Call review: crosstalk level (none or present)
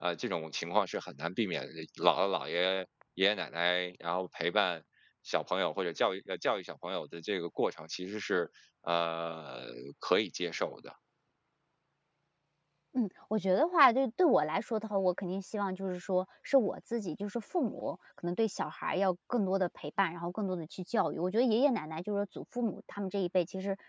none